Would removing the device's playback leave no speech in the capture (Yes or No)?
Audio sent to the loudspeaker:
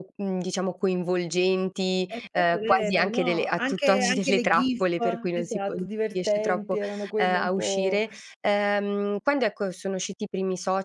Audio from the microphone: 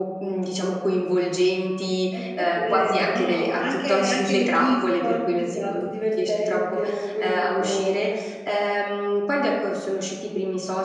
Yes